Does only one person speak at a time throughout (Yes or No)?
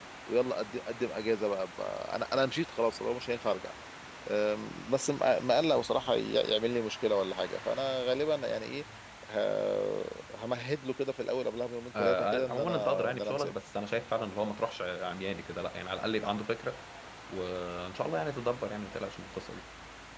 No